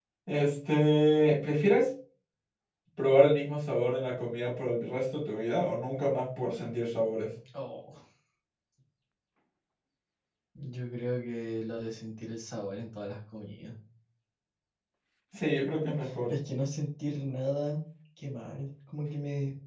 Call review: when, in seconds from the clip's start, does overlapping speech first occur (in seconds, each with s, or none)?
none